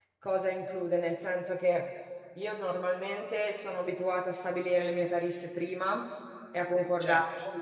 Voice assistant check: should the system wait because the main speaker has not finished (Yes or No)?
Yes